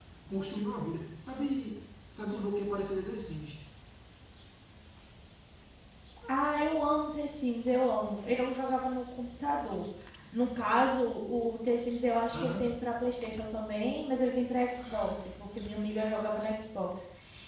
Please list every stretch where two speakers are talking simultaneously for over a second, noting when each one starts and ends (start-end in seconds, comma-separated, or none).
none